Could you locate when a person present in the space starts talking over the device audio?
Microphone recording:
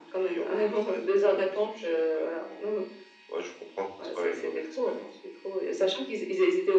none

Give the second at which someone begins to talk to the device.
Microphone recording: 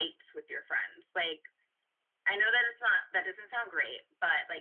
none

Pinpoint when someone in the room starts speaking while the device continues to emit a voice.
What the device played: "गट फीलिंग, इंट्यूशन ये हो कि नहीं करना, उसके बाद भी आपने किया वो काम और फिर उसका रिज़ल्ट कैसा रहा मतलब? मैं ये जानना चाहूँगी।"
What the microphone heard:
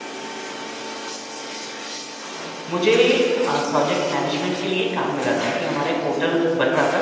2.7 s

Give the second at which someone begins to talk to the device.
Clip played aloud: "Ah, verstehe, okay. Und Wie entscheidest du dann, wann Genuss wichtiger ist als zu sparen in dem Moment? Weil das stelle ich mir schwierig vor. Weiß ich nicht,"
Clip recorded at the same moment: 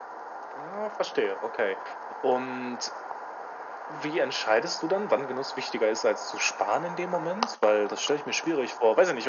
none

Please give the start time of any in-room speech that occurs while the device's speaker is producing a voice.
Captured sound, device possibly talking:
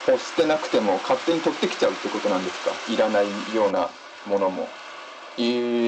none

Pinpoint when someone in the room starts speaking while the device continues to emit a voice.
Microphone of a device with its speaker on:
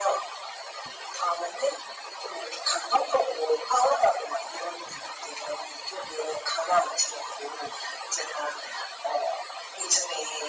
none

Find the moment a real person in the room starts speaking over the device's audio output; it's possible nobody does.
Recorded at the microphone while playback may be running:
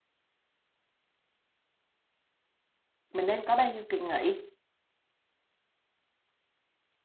3.1 s

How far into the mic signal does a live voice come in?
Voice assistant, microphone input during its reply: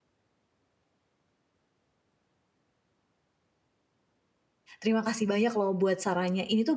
4.8 s

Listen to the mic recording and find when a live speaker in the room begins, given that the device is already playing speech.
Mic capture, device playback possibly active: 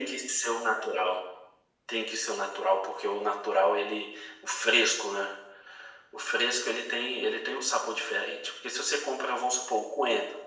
none

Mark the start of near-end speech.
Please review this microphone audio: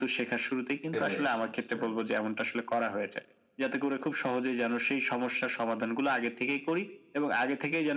0.8 s

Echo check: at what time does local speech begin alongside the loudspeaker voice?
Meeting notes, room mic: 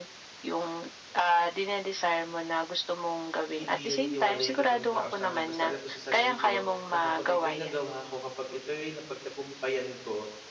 3.6 s

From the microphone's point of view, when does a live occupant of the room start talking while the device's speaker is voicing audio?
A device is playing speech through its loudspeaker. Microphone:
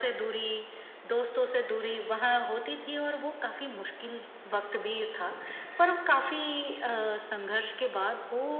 none

